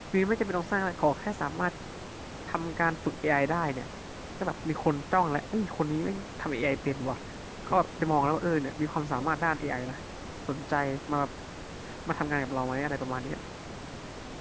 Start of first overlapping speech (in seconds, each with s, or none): none